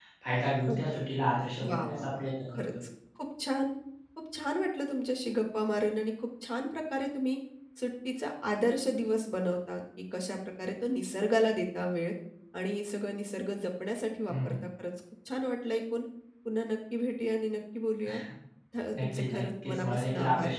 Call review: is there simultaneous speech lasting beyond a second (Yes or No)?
Yes